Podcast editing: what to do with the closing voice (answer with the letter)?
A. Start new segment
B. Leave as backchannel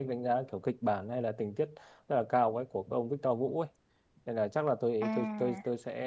B